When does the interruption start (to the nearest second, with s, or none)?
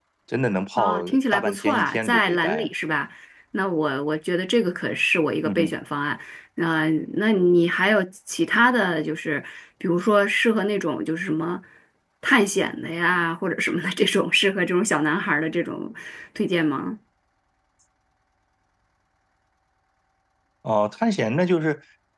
1 s